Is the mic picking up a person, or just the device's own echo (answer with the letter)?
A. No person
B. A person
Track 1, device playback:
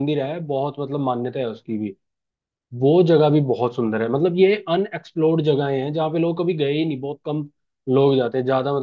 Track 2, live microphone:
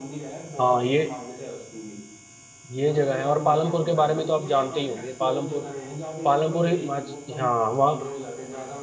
B